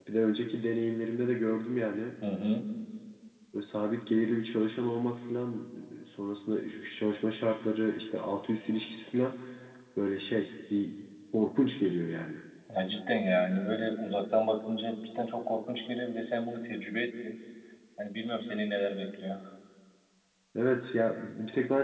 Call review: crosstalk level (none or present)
none